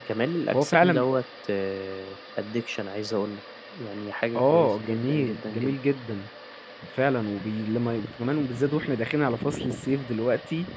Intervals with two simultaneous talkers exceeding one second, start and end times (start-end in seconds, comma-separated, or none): 4.4-5.8